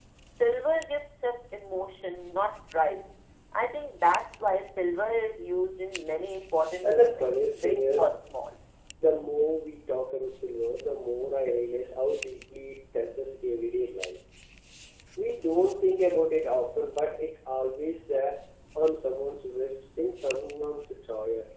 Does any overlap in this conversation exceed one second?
Yes, from 6.8 s

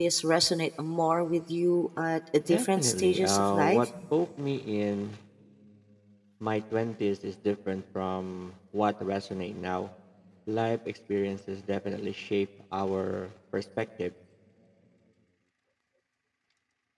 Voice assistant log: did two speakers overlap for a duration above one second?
Yes, from 2.4 s

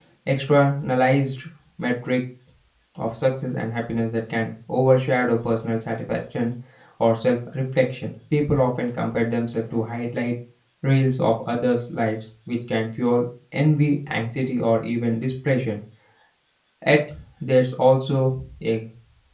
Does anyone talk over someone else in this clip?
No

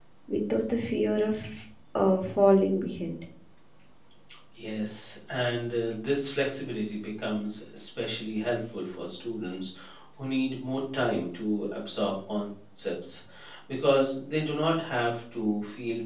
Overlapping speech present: No

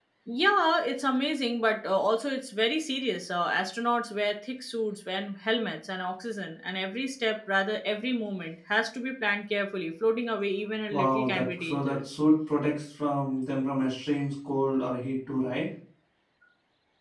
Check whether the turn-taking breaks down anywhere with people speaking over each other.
Yes, from 10.9 s

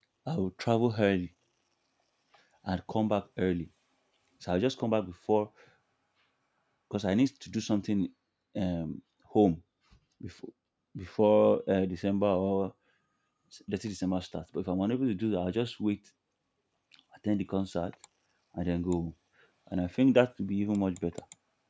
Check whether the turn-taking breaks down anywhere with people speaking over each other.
No

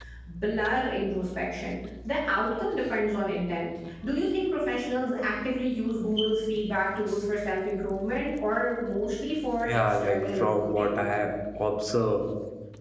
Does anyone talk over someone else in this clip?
Yes, from 9.6 s

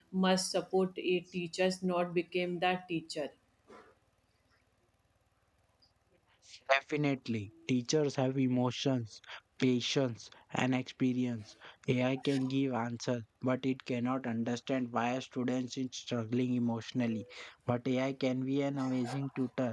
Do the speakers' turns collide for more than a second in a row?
No

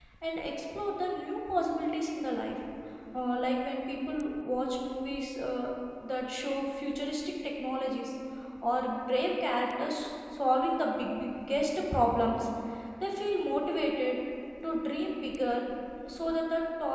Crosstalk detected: No

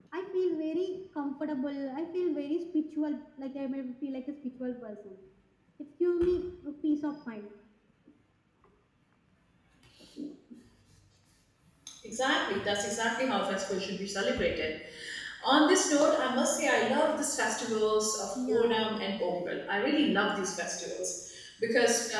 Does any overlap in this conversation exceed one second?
No

